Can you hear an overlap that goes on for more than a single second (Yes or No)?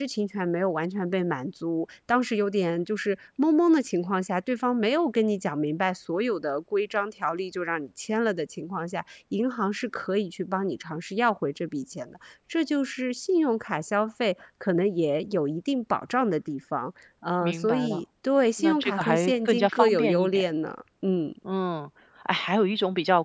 Yes